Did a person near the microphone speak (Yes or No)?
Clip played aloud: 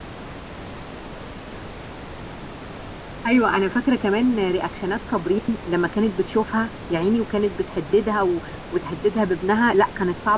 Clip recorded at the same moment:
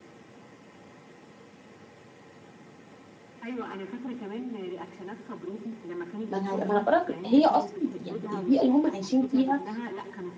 Yes